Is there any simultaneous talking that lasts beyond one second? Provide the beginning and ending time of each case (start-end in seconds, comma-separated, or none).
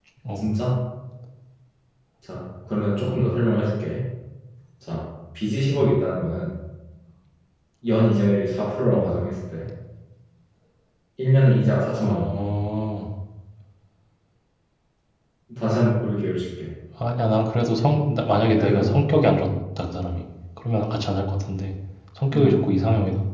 none